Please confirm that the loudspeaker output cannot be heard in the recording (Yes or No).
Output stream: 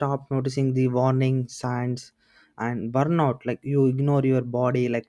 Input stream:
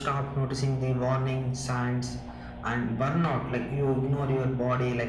No